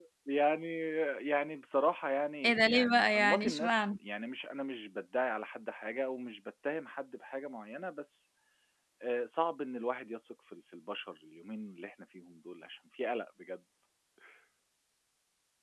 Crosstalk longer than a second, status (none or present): present